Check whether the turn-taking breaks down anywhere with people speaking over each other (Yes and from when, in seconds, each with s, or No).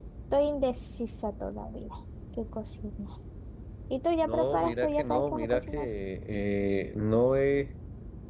Yes, from 4.3 s